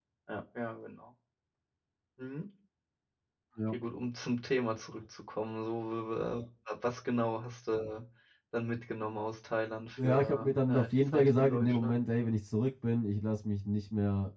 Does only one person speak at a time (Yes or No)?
No